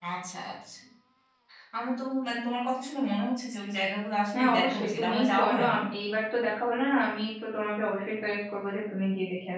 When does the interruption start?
4.3 s

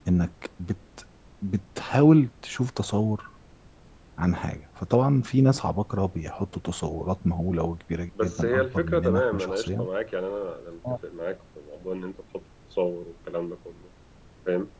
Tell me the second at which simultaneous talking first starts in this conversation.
8.2 s

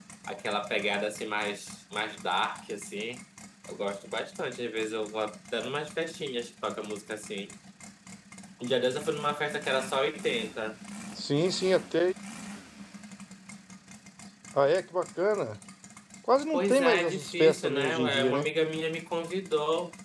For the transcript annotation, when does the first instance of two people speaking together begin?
16.5 s

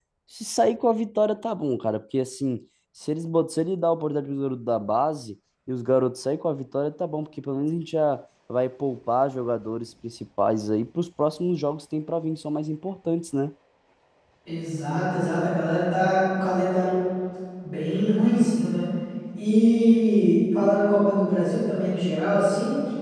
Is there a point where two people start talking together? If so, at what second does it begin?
none

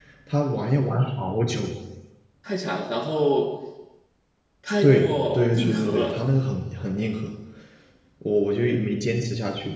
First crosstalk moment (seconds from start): 4.8 s

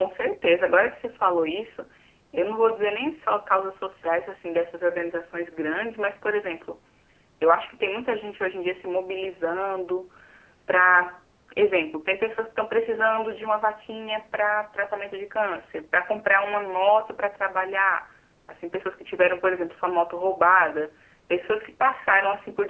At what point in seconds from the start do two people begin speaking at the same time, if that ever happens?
none

